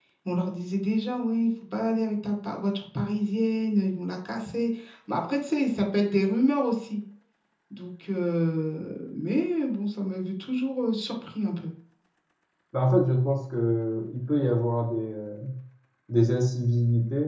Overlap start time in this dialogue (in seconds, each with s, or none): none